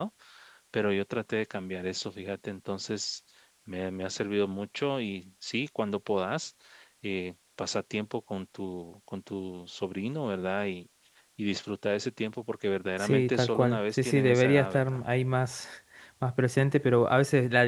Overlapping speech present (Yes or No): Yes